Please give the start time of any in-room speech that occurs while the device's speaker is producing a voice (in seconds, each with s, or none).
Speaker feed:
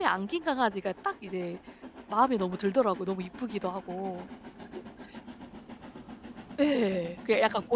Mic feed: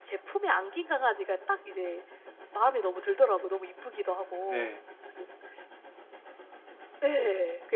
4.5 s